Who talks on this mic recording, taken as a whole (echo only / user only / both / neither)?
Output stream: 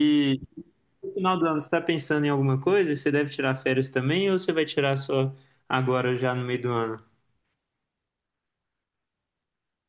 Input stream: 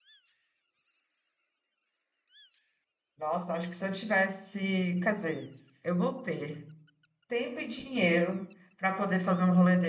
user only